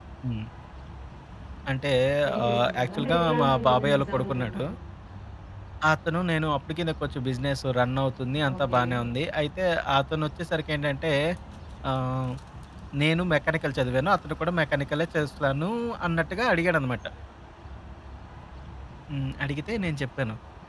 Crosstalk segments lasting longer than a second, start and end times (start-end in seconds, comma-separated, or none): 2.5-4.6